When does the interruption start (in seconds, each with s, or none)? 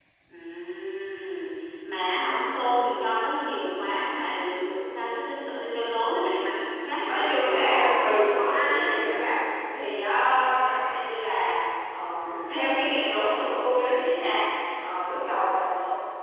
7.1 s